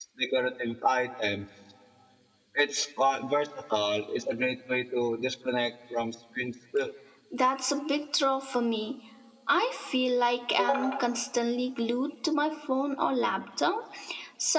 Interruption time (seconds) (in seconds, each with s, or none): none